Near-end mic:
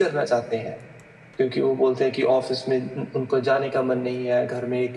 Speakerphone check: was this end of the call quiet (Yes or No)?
Yes